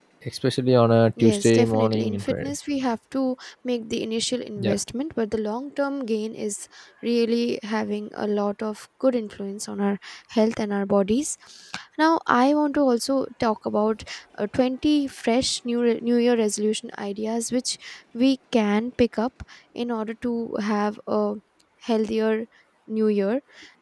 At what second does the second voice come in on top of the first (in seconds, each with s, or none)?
1.2 s